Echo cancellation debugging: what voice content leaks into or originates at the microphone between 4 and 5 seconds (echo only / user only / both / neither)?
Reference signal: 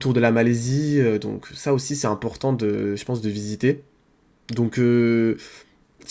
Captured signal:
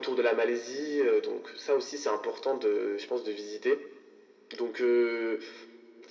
echo only